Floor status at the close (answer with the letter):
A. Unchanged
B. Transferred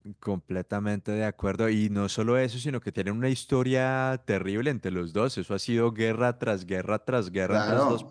B